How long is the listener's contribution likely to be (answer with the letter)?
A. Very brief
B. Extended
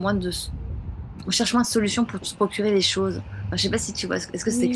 B